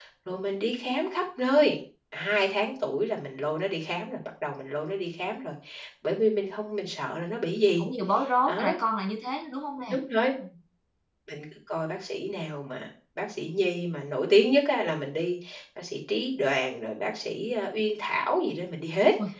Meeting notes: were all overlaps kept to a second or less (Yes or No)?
Yes